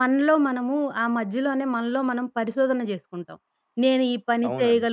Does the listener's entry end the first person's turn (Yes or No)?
No